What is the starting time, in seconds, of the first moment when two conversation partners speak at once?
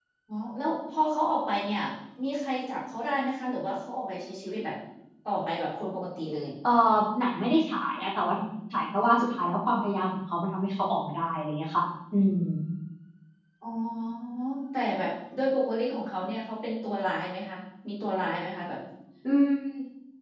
none

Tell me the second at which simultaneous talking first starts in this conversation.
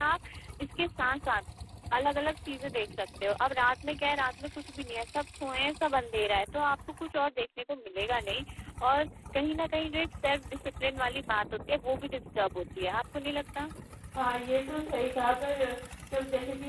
none

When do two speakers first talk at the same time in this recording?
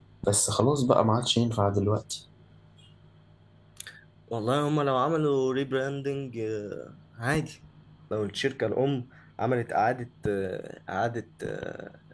none

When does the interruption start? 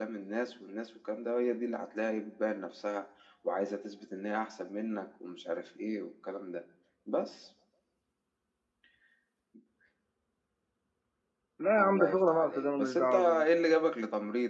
12 s

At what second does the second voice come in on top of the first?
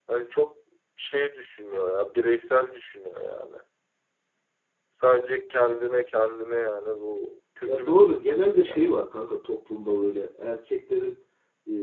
8 s

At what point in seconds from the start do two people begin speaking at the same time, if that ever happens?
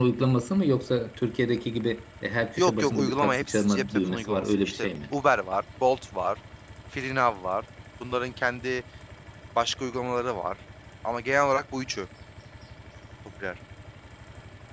3 s

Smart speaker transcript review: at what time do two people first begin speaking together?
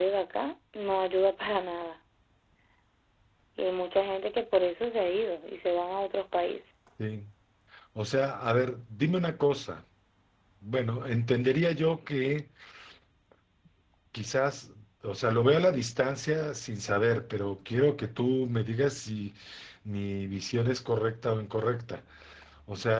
none

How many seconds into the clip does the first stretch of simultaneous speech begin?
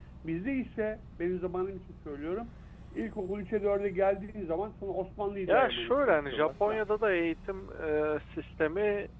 5 s

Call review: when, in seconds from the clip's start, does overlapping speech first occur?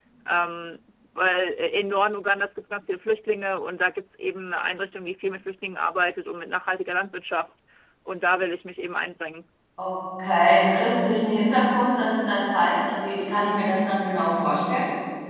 none

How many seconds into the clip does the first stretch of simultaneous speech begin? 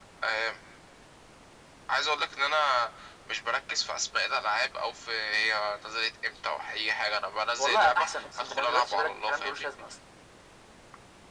8 s

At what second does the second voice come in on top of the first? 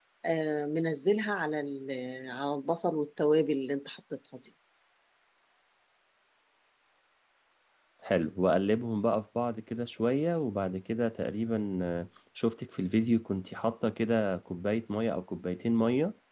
none

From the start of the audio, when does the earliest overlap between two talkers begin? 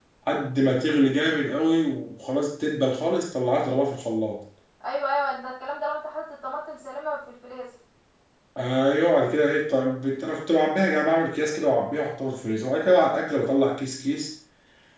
none

